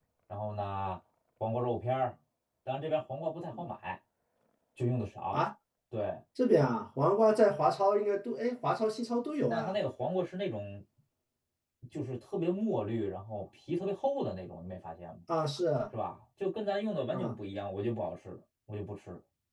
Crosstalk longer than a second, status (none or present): none